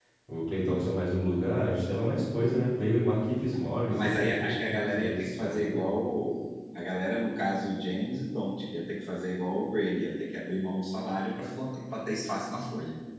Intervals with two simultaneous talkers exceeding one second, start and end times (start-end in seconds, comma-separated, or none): 3.9-5.8